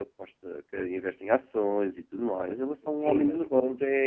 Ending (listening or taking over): taking over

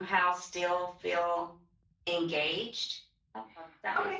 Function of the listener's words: taking over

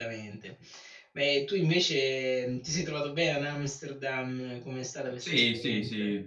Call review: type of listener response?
taking over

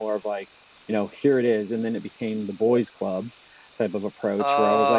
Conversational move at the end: listening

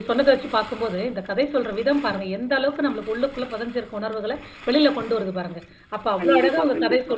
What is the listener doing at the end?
listening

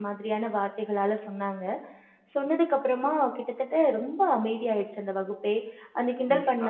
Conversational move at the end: taking over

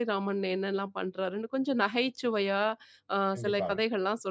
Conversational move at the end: listening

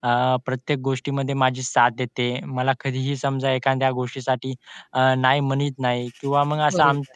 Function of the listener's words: listening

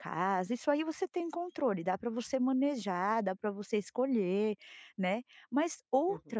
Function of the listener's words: listening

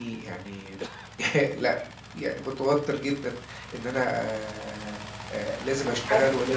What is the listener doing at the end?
listening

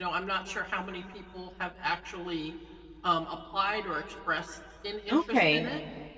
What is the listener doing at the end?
taking over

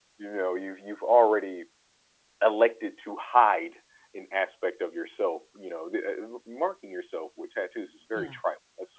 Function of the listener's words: listening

